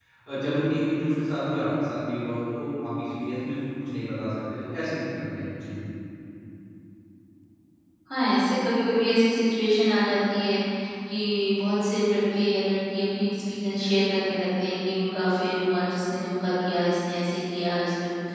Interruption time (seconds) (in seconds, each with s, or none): none